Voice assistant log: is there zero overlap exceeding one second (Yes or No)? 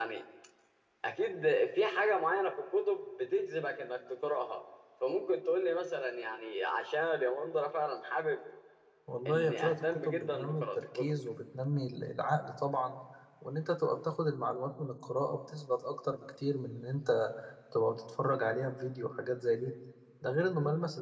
No